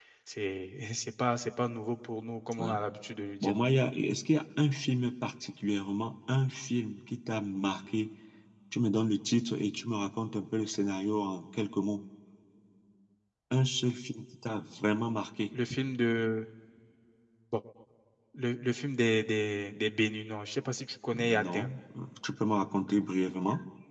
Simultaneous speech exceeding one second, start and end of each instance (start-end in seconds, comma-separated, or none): none